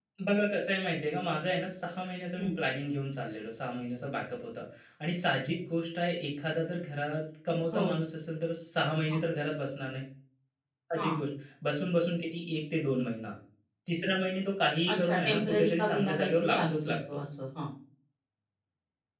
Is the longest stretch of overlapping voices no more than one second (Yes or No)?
No